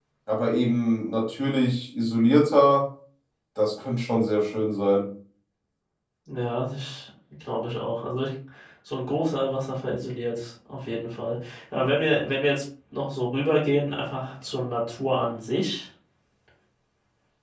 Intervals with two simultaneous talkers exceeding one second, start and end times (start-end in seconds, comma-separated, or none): none